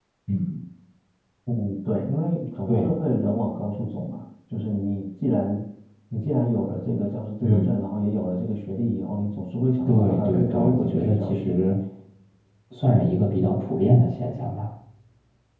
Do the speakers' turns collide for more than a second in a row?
Yes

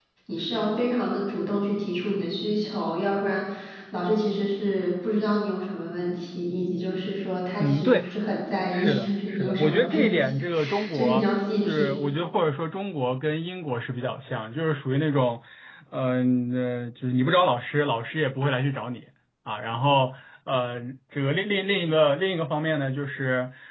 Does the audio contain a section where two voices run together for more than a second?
Yes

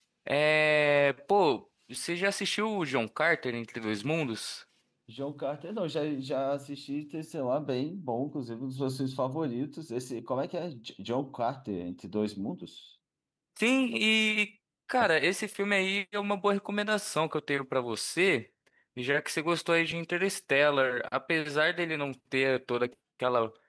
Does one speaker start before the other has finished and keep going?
No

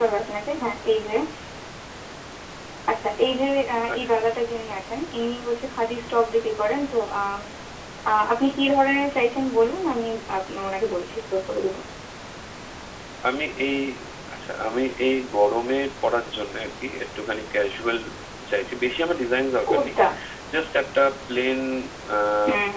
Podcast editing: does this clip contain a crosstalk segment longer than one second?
No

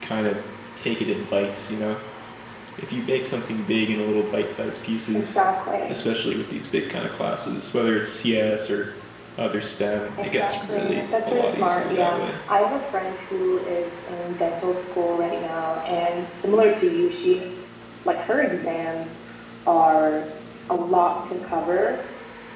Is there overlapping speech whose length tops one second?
Yes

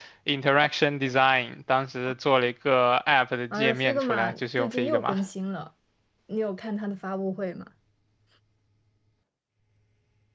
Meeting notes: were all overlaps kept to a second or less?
No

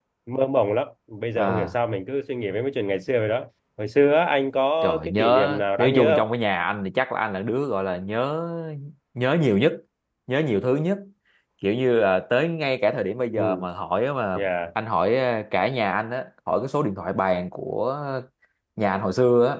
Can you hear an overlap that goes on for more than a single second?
Yes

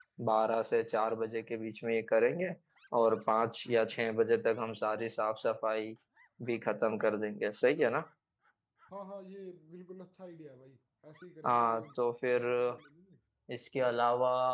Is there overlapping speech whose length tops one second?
No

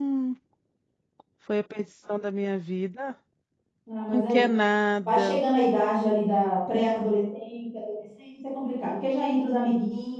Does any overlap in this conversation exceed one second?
No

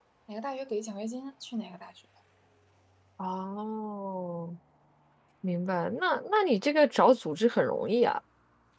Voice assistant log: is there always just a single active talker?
Yes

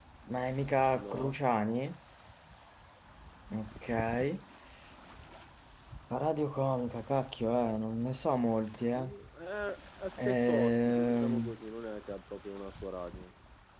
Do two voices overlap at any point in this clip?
Yes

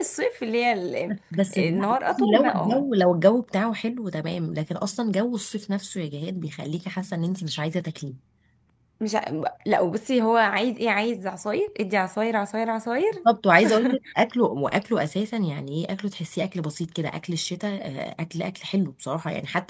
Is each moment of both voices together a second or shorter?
No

